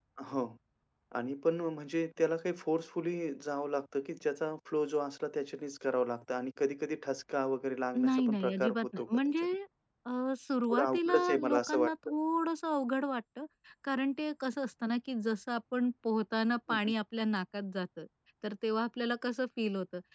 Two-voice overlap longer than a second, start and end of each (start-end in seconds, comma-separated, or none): 8.0-9.6, 10.7-11.9